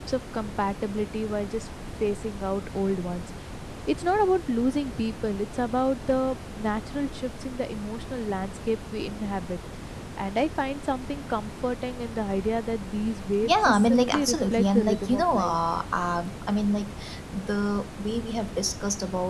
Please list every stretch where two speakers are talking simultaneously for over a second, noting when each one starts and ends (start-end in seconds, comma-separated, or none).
13.4-15.6